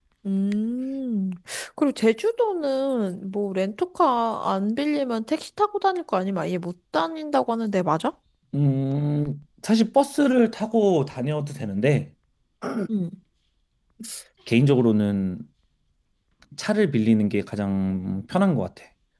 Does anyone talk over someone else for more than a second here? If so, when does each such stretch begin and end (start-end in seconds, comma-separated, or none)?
none